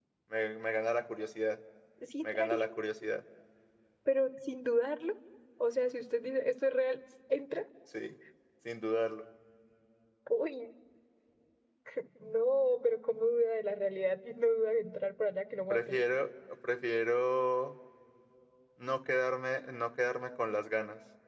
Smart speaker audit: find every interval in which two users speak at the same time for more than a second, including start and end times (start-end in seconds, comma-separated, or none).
none